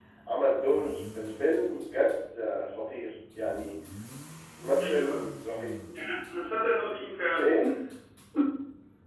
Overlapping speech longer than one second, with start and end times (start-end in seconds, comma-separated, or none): none